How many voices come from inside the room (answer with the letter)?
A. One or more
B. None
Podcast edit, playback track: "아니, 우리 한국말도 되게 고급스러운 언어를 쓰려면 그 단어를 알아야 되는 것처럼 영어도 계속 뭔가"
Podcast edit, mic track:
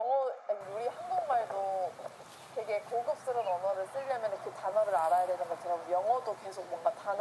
B